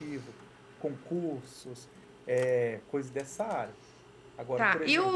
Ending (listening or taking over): taking over